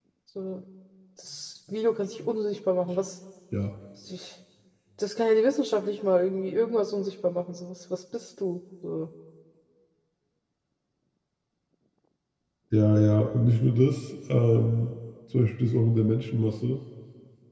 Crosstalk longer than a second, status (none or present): none